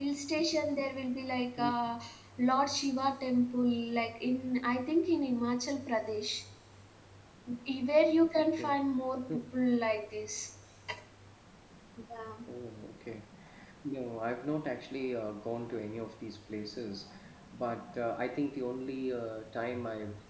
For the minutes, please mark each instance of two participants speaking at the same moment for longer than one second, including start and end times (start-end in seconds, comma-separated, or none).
none